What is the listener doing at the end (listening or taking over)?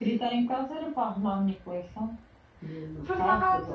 taking over